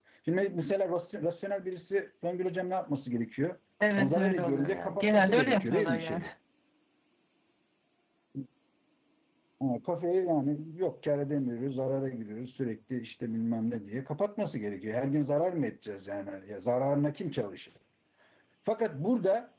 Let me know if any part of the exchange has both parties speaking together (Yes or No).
Yes